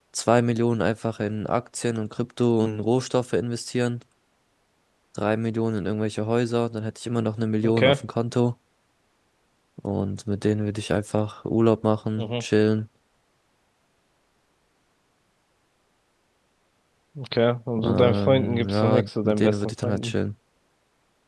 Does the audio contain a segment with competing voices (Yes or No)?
Yes